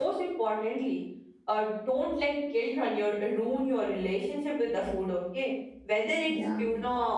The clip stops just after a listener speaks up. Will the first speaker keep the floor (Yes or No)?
Yes